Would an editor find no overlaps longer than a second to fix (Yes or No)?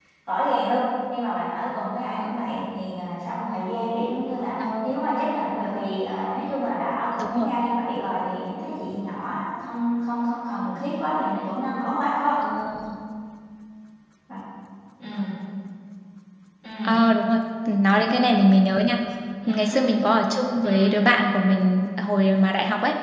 Yes